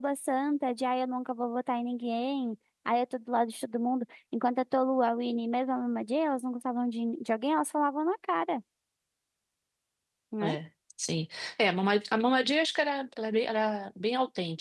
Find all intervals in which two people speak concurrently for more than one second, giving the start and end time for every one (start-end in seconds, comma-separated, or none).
none